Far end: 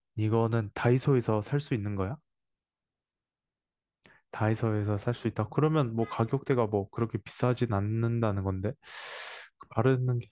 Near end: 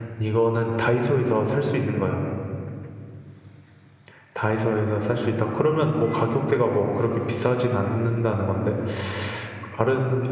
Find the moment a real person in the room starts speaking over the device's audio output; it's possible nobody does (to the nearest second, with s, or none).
none